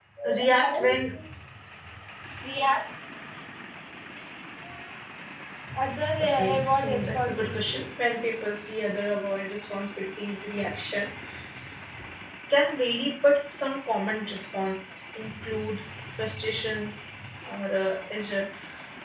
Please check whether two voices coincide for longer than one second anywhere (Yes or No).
Yes